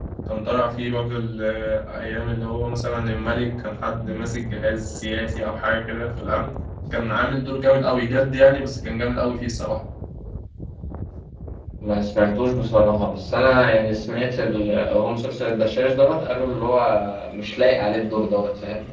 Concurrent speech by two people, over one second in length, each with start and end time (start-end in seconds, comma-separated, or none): none